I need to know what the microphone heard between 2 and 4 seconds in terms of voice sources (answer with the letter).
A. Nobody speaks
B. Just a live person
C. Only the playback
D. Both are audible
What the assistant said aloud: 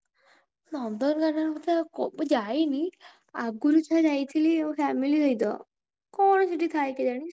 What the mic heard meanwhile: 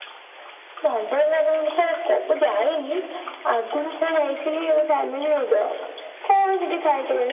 C